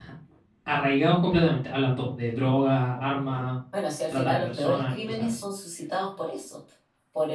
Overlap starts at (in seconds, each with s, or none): 4.1 s